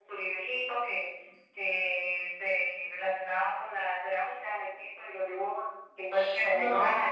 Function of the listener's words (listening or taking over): listening